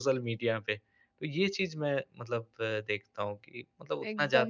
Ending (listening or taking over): taking over